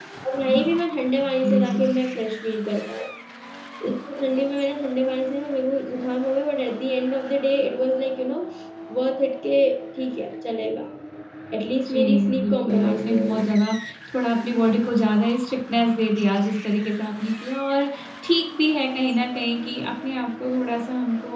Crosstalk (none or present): present